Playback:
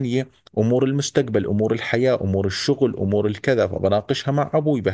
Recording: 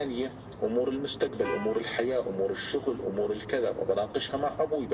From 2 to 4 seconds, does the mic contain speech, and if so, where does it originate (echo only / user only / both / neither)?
echo only